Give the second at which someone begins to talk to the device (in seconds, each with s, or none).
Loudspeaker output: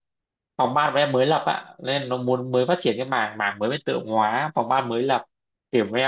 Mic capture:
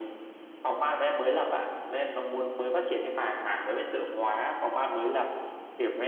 none